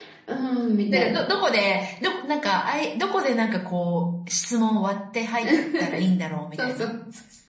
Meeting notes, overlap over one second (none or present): none